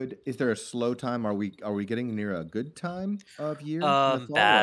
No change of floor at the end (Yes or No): No